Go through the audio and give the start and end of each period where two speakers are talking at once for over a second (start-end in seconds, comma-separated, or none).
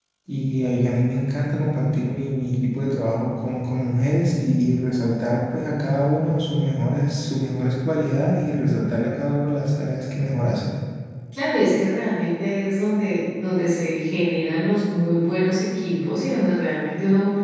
none